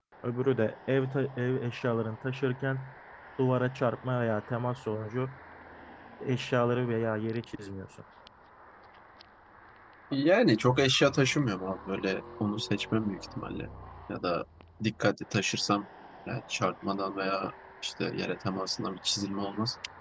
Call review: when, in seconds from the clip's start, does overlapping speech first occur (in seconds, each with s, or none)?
none